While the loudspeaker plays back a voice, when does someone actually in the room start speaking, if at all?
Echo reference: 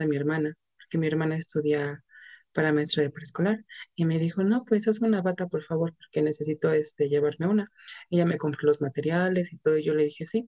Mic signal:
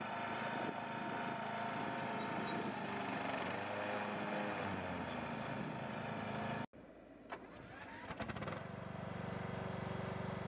none

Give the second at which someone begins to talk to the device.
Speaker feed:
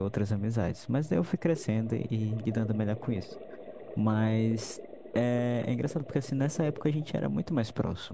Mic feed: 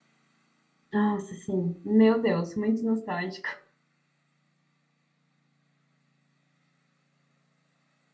1 s

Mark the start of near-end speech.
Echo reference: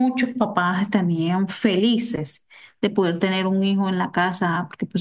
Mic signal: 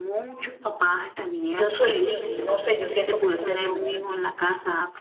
1 s

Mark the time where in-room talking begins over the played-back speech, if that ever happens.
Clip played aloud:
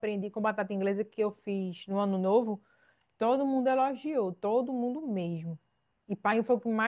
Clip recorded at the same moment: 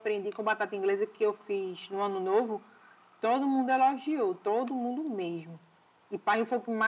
none

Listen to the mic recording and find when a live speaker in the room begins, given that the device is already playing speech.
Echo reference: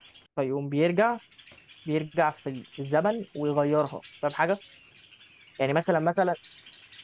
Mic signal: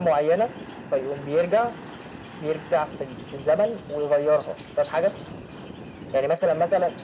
none

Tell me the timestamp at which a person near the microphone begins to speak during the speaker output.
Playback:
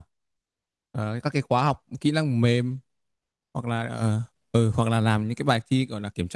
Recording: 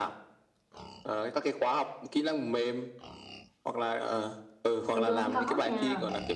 5 s

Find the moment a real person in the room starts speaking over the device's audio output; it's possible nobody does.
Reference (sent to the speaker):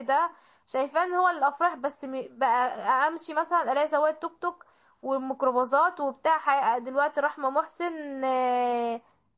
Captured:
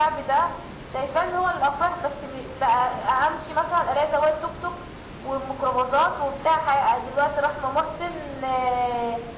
none

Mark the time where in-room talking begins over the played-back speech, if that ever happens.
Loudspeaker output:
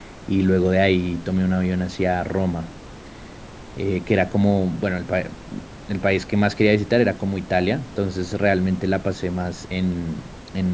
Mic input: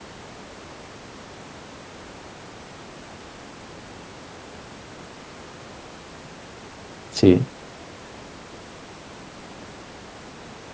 7 s

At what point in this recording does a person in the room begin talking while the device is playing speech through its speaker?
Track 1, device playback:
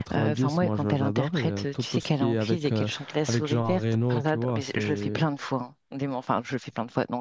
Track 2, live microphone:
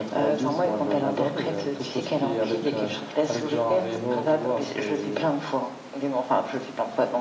none

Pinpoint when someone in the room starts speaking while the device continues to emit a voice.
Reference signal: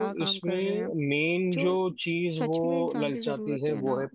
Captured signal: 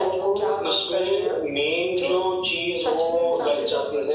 none

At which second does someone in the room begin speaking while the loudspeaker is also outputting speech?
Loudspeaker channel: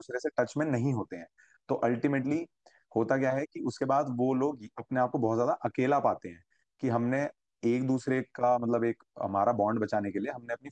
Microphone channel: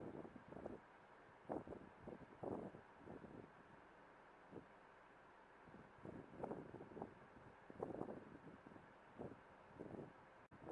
none

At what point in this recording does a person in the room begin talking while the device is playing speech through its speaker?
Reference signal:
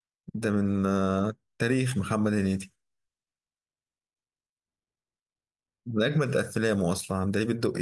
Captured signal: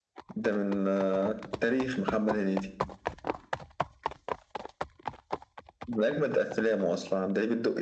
none

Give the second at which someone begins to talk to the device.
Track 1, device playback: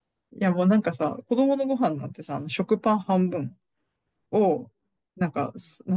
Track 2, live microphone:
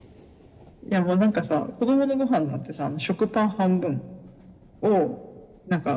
none

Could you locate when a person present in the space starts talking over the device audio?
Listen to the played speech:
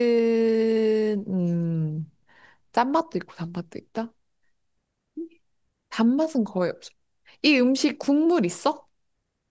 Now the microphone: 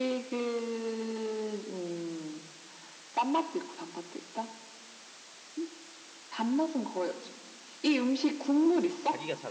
9 s

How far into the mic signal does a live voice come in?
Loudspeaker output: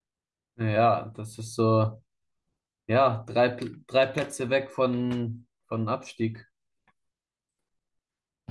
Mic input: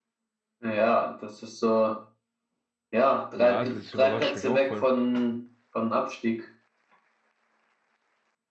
3 s

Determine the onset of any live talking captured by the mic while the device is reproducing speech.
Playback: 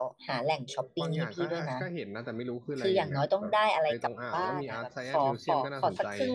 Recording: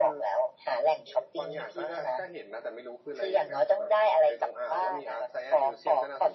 none

